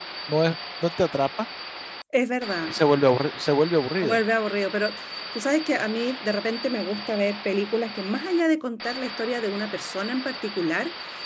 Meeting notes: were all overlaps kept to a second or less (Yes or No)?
Yes